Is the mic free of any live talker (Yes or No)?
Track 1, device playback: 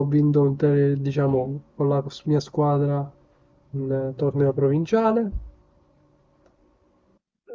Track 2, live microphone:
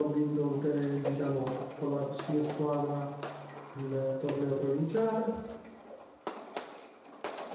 Yes